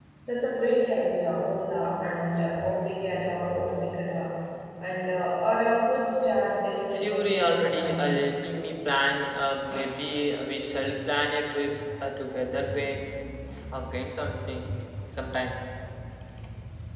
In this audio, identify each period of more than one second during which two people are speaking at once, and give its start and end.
6.9-8.1

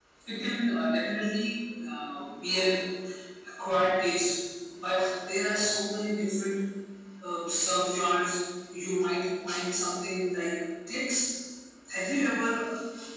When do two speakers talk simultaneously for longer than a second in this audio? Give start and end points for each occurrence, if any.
none

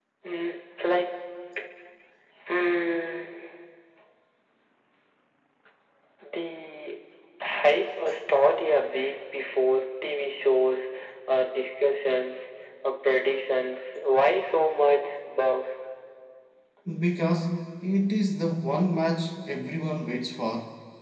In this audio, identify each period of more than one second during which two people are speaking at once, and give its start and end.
none

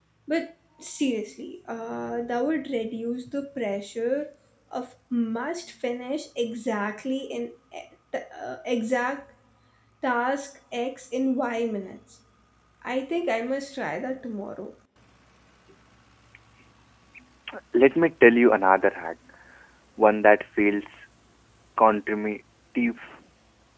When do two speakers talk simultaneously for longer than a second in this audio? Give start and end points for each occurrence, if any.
none

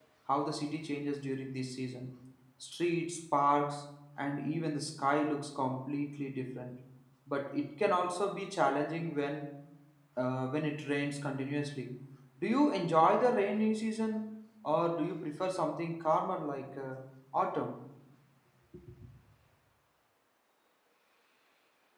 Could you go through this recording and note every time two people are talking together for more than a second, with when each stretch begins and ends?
none

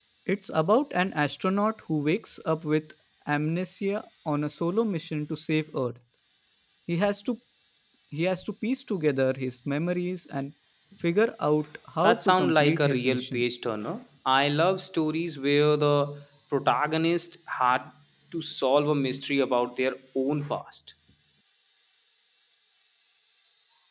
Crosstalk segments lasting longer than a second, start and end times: 12.0-13.4

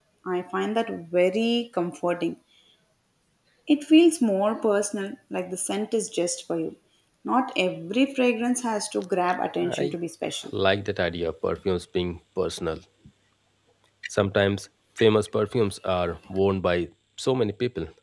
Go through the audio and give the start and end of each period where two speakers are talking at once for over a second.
none

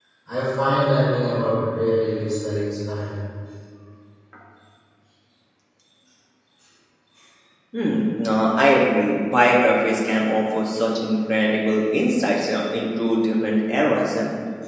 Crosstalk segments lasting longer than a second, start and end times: none

